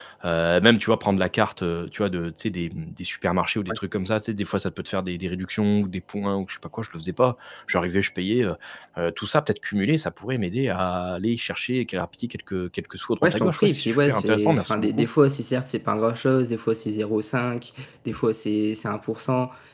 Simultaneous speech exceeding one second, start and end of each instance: 13.2-15.1

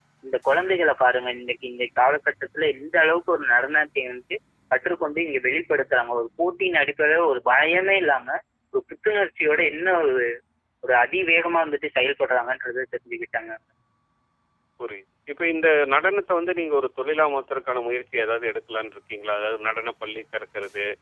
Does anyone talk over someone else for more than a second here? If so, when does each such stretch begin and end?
none

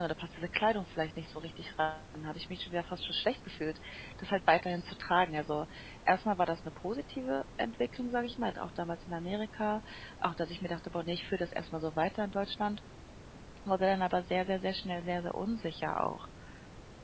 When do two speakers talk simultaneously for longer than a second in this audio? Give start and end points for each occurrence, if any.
none

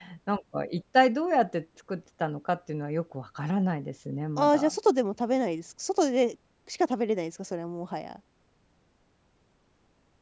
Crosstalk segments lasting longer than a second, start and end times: none

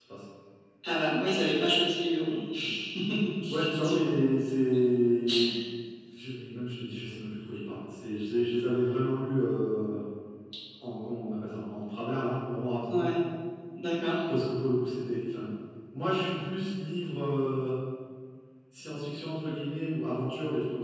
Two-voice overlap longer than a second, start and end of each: none

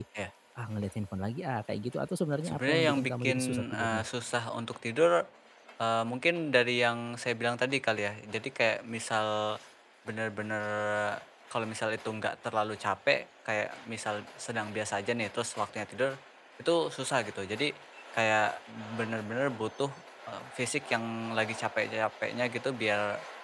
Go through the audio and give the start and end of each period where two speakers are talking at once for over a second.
2.4-4.1

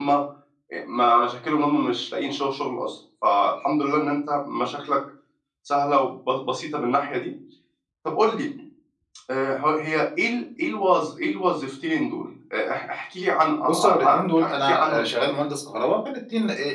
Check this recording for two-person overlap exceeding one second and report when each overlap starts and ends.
13.7-15.1

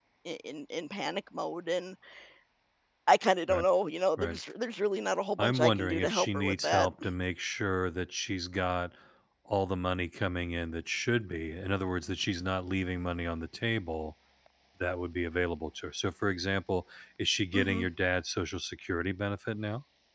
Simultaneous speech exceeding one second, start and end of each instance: 5.4-6.9

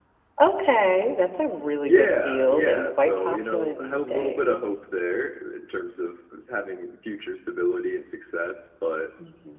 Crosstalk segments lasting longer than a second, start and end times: 1.9-4.6

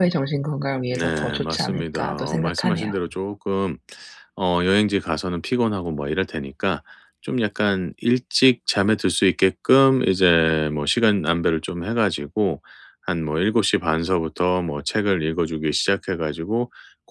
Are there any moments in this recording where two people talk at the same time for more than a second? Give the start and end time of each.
0.9-2.9

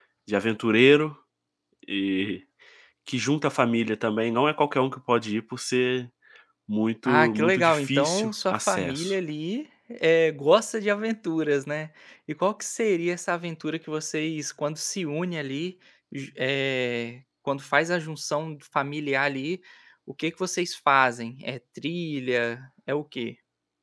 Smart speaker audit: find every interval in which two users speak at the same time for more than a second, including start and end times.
7.0-9.2

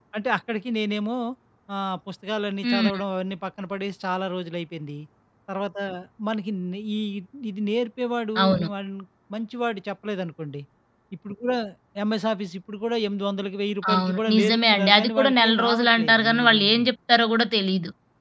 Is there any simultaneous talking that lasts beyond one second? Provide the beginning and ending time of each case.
13.9-16.6

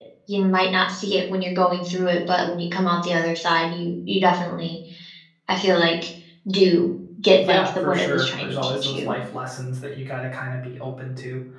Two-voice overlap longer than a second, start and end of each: 7.5-9.2

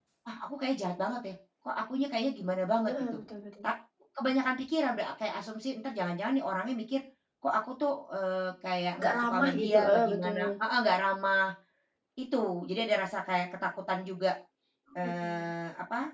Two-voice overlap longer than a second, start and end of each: 9.0-10.5

